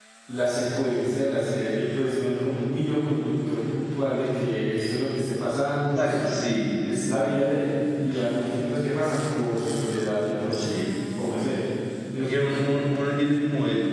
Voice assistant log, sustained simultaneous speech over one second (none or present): none